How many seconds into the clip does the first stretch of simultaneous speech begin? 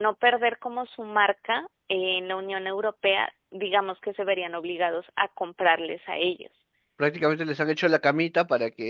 none

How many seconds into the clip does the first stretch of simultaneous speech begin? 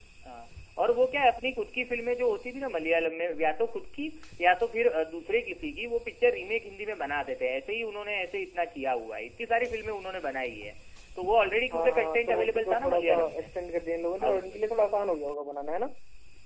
11.7 s

